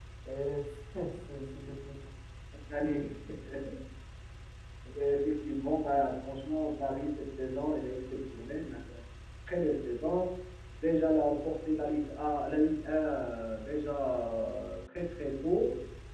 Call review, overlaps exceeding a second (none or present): none